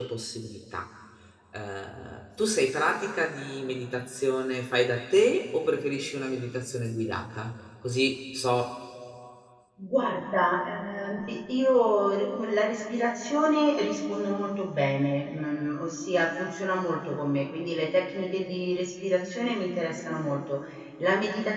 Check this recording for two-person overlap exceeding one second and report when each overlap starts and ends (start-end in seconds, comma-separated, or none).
none